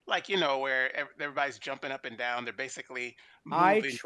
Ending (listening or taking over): taking over